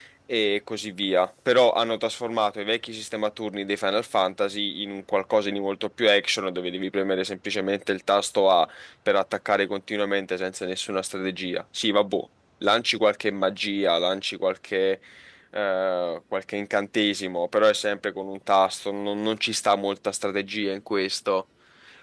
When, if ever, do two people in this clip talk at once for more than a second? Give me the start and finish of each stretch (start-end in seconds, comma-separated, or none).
none